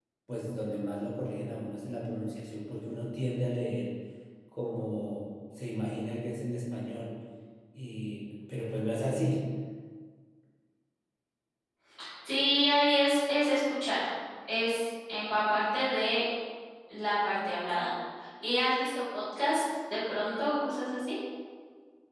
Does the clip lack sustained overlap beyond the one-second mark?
Yes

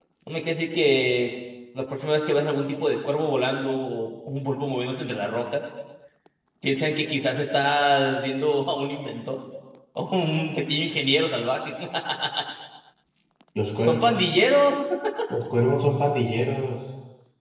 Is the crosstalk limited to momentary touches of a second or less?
Yes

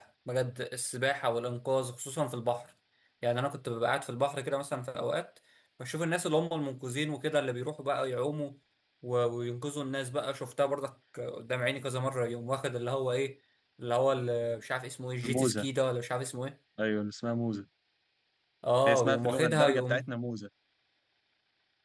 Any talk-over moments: Yes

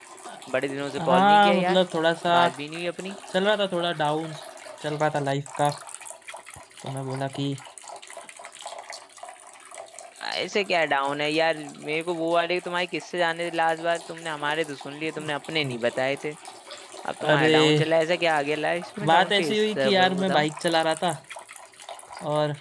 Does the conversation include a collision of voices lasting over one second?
Yes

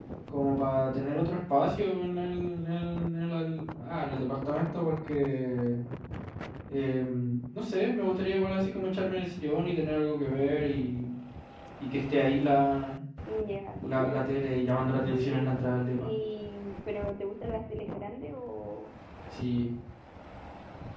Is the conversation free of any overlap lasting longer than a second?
Yes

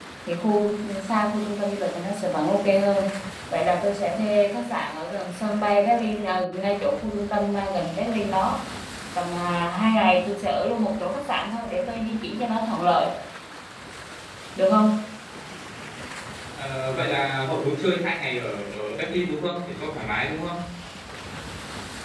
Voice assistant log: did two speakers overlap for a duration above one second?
No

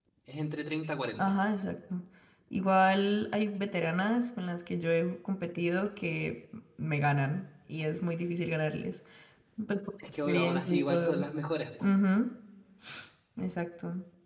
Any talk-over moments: Yes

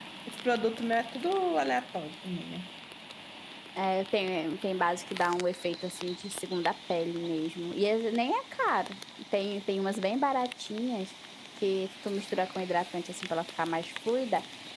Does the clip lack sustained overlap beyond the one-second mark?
Yes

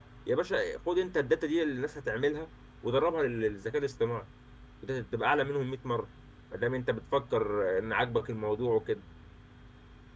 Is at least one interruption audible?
No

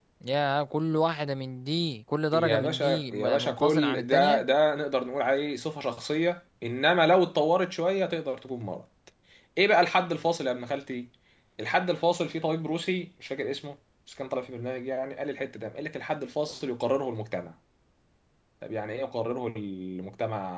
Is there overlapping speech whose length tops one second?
Yes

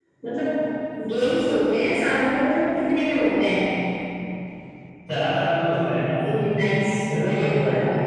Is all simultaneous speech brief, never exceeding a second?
Yes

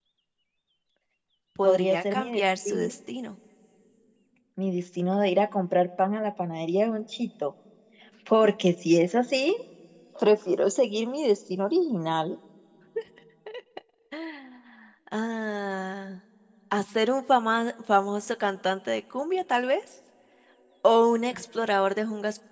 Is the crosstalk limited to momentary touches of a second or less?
No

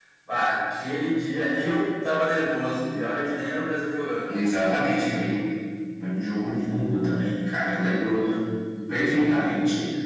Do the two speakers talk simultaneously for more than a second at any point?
No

